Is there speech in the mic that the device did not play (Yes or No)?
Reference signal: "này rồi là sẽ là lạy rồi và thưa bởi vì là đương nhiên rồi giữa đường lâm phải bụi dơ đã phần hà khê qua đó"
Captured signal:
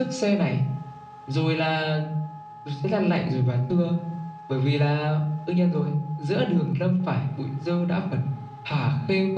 No